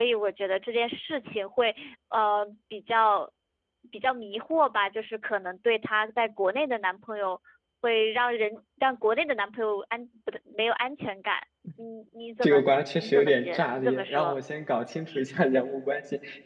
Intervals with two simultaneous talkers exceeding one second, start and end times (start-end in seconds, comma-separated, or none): 12.4-14.3